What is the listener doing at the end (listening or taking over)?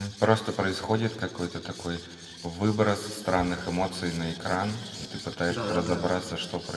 listening